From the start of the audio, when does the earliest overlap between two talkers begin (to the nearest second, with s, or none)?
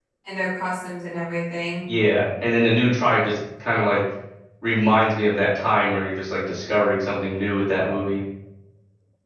none